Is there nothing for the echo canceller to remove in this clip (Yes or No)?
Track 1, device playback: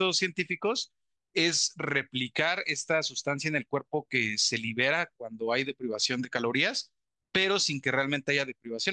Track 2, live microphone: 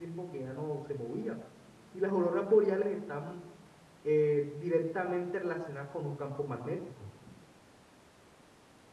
Yes